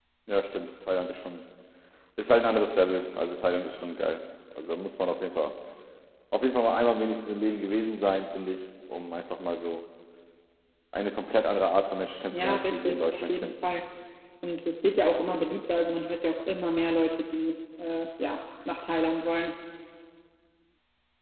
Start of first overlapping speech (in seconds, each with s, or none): 12.3 s